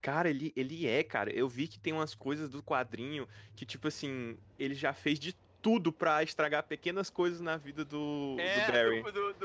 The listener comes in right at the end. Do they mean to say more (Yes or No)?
Yes